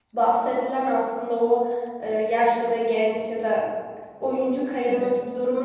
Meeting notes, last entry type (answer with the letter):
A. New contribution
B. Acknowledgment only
B